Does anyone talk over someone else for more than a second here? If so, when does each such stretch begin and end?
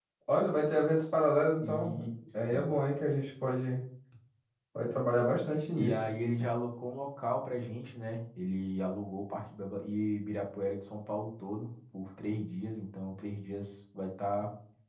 none

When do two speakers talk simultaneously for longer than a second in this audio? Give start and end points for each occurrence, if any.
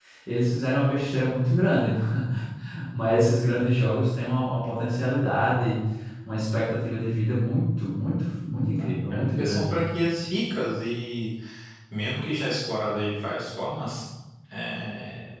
8.5-9.8

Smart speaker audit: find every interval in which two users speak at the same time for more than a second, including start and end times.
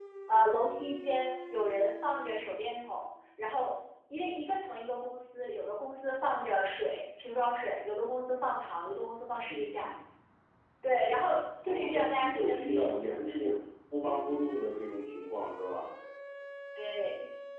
11.7-13.5

